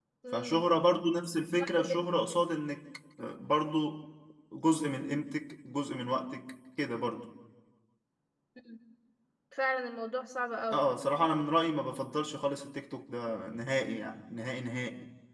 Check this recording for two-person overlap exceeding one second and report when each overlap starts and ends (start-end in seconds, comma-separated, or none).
none